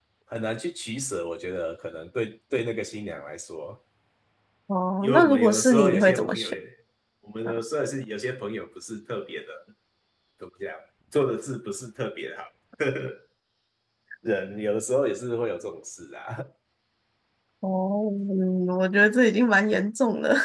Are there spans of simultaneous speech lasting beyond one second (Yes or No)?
Yes